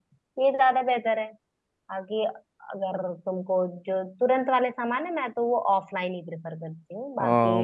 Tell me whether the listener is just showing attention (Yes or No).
No